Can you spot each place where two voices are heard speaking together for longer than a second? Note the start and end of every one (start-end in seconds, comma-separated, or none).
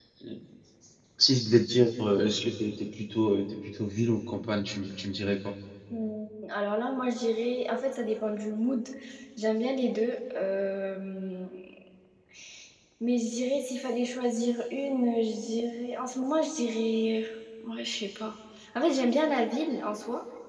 none